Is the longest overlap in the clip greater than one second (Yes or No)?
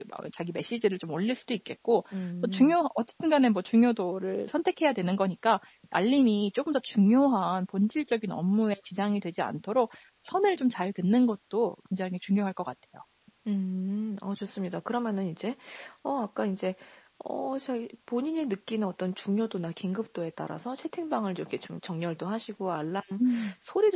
No